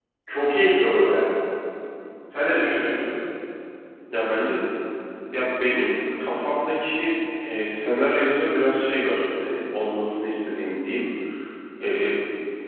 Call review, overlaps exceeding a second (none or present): none